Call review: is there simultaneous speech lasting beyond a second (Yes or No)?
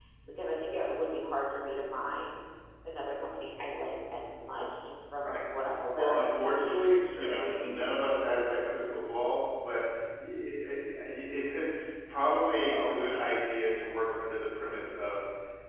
Yes